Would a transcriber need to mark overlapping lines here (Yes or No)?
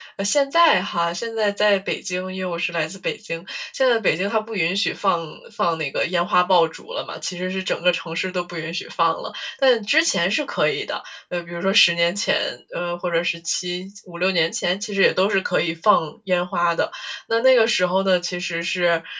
No